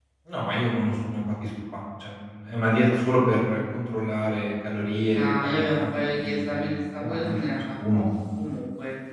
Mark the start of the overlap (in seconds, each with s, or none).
5.1 s